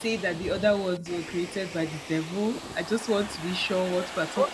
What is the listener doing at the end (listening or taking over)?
taking over